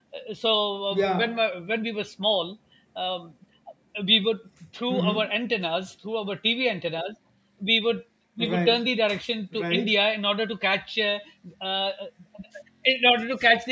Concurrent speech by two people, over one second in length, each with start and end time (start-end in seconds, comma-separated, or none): none